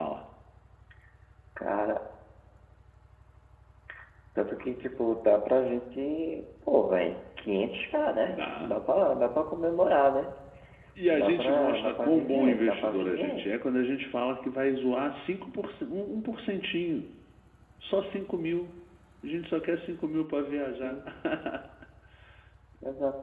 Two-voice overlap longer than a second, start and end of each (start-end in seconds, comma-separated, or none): 11.1-13.5